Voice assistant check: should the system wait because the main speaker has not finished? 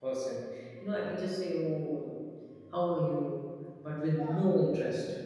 Yes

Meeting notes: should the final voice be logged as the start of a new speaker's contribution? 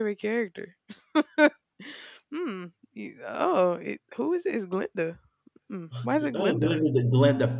Yes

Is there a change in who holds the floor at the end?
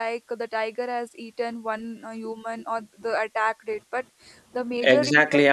Yes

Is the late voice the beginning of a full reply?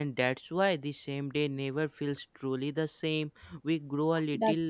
No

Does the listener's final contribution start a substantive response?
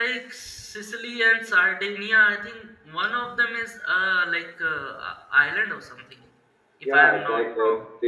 Yes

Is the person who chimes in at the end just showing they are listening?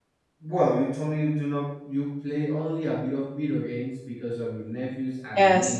Yes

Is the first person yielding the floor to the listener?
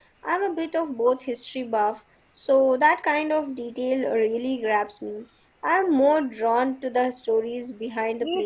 Yes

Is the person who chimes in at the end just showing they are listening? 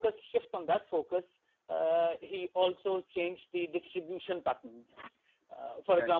Yes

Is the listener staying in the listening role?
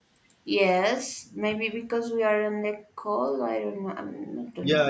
No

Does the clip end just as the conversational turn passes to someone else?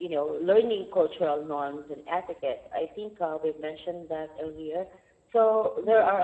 No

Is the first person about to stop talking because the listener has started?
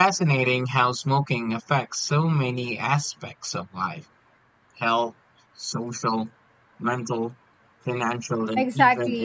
Yes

